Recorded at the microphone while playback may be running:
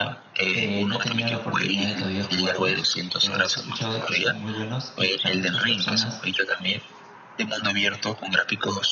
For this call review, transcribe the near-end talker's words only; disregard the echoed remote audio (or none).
eh, no he tenido la oportunidad de todavía jugarlos, pero sí he escuchado de que son muy buenos y para muchas personas